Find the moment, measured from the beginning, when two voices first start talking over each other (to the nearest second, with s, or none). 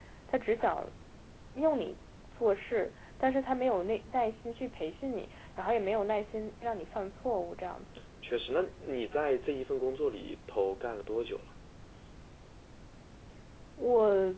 none